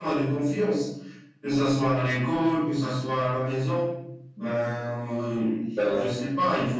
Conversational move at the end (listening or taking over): listening